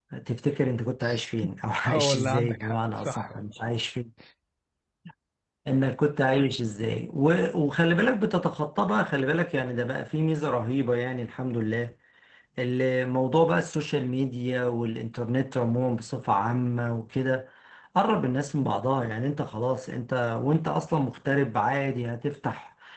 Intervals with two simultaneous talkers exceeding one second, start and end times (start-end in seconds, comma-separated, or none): 1.9-3.5